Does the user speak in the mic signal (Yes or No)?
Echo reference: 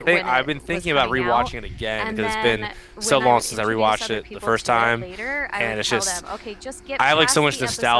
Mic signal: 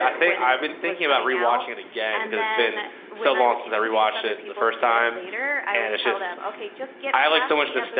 No